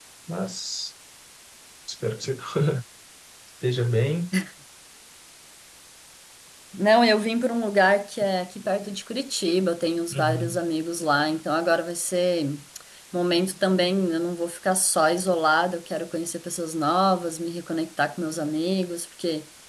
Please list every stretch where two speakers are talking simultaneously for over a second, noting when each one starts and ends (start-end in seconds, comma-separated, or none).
none